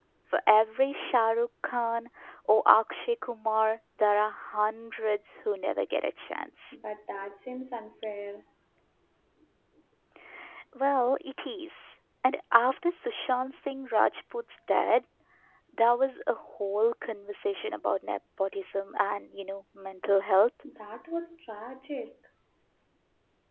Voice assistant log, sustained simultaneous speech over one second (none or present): none